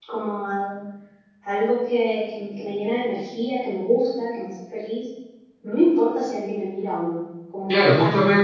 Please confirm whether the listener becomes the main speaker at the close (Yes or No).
Yes